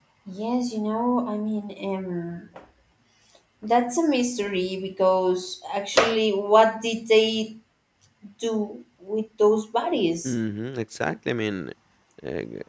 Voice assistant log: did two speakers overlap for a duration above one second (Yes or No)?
No